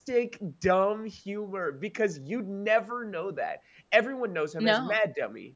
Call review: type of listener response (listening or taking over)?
listening